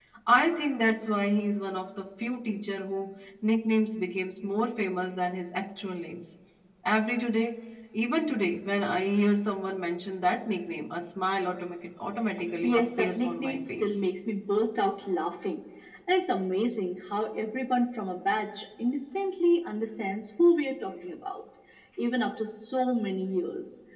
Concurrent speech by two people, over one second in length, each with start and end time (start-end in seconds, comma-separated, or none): 12.6-14.1